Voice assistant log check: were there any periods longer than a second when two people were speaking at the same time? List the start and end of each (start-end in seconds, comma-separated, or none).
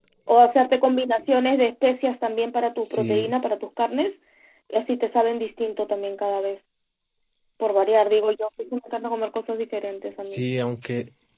none